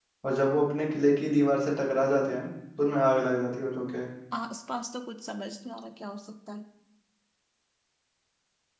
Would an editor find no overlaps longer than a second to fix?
Yes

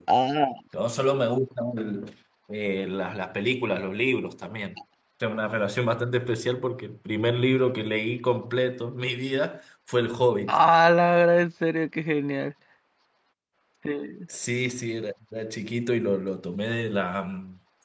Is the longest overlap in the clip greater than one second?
No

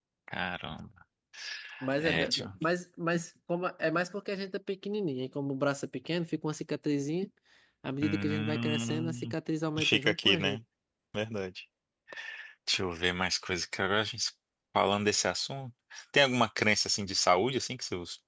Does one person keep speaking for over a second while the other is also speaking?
Yes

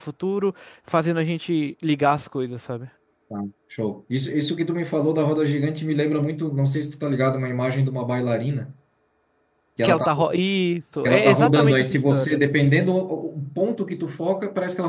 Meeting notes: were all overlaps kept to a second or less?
No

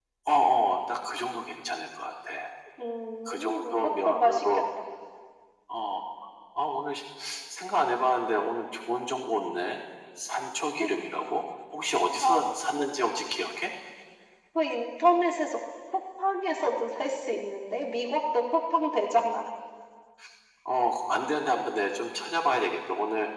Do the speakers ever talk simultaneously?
Yes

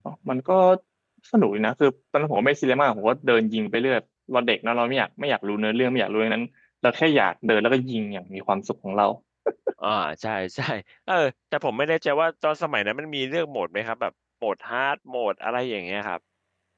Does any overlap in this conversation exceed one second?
No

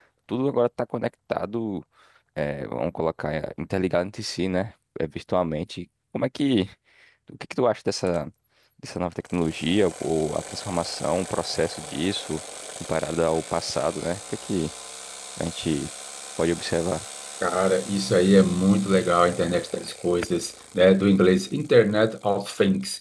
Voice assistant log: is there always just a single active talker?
Yes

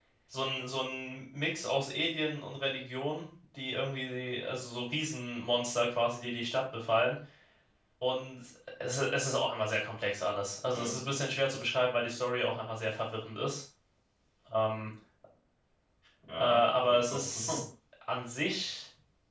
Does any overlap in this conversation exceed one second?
Yes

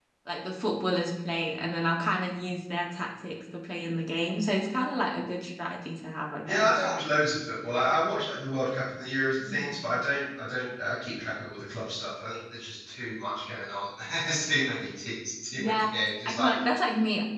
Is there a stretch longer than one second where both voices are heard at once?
No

